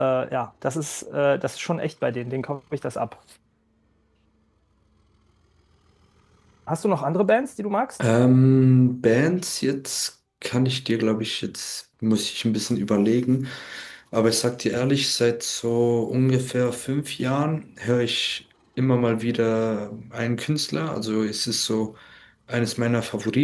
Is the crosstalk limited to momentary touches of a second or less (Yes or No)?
Yes